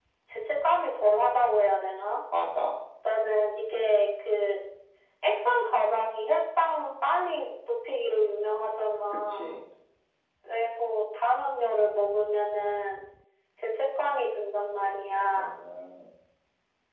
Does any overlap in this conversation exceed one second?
No

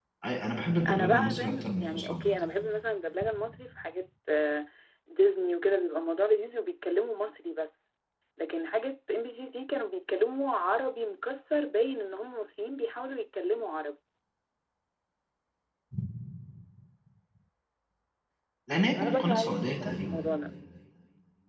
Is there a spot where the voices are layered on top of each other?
Yes, from 0.9 s

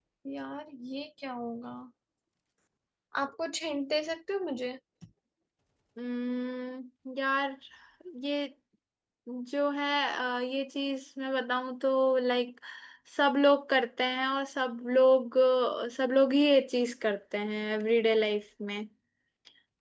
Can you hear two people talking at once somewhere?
No

